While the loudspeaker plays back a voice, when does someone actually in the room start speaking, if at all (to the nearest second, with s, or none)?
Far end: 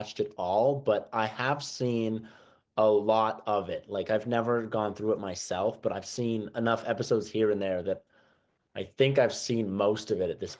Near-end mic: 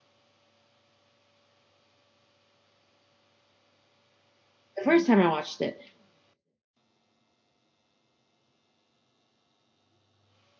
5 s